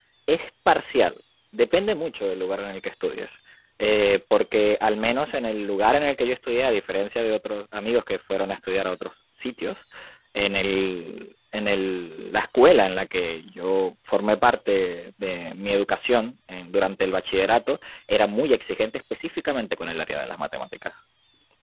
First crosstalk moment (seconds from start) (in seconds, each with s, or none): none